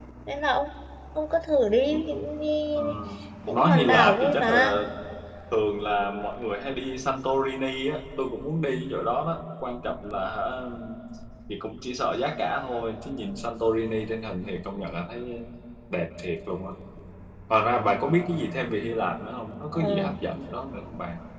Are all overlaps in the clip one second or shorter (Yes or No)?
No